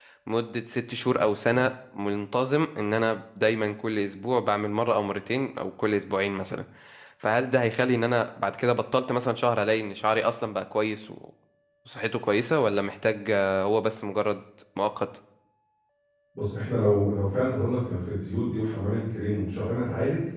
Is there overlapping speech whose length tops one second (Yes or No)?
No